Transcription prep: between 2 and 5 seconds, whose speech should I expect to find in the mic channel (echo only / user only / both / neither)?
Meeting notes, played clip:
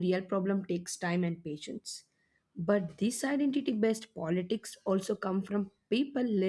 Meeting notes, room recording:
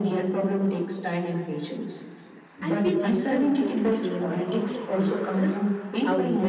both